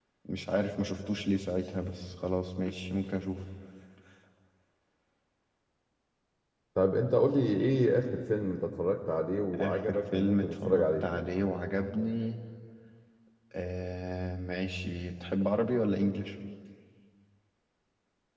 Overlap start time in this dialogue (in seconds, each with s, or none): 9.5 s